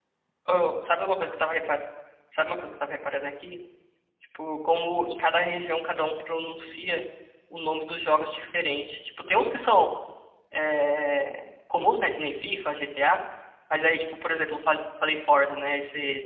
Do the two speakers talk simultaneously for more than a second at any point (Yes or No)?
No